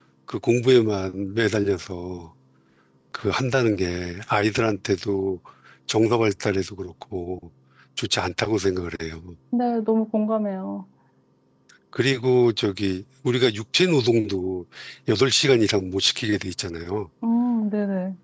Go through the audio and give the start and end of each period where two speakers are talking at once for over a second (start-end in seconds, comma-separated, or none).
none